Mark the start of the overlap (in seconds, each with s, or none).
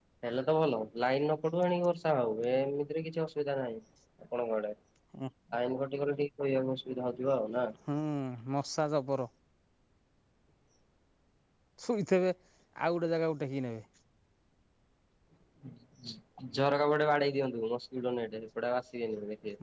none